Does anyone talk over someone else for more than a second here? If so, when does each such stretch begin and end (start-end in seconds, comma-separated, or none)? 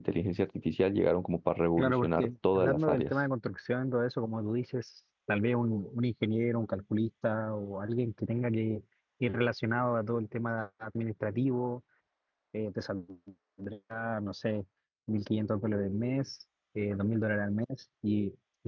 1.8-3.1